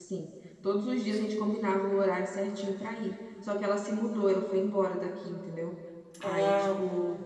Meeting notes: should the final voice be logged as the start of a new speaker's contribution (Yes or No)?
No